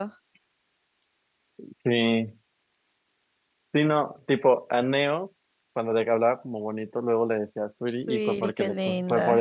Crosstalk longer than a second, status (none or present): present